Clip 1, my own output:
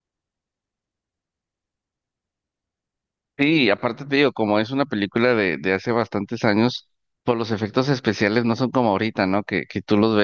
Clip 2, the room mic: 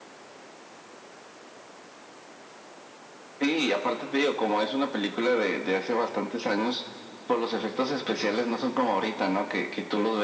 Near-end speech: none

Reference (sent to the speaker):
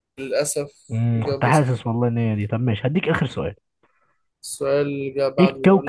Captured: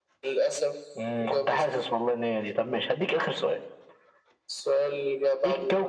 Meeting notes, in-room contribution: none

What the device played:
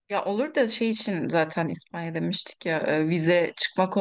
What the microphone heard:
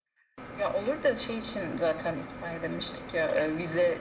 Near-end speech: none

